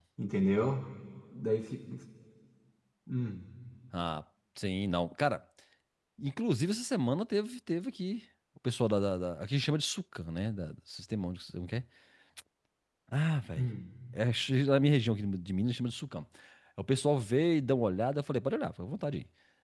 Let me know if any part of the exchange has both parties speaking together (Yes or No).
No